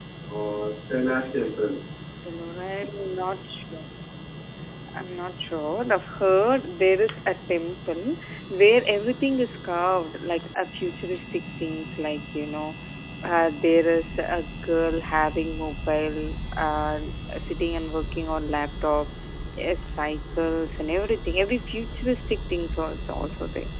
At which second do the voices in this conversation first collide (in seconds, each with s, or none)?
none